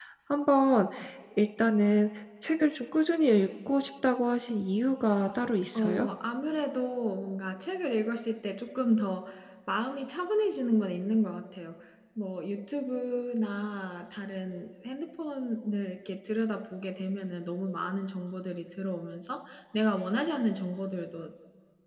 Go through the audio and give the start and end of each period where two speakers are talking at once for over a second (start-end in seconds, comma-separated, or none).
none